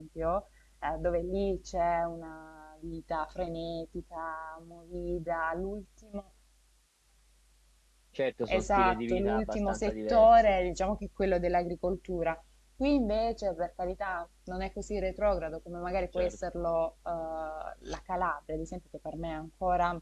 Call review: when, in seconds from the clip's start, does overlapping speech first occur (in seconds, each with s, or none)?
8.5 s